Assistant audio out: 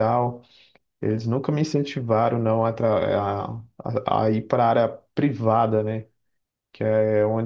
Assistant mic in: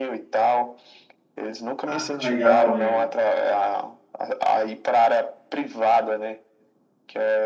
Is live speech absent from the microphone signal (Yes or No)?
No